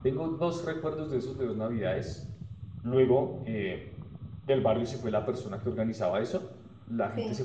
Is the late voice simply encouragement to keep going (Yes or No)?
Yes